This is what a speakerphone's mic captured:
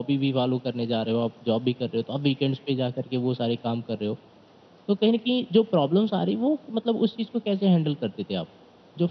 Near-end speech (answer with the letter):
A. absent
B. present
A